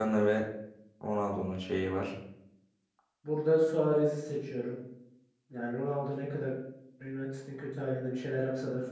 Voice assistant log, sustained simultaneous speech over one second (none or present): none